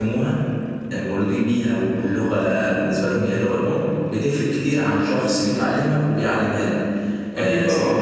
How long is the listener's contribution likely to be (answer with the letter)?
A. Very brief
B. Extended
A